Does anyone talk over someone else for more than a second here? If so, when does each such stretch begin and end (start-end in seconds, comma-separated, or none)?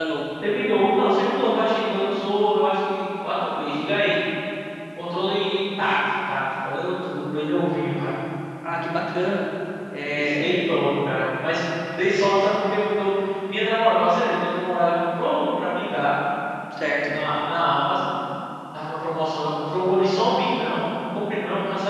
none